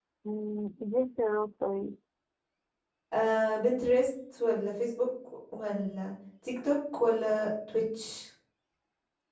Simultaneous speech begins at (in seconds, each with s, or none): none